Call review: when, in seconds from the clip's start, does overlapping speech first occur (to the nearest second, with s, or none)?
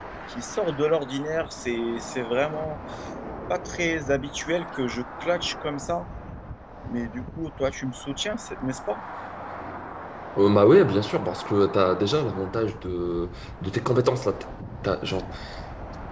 none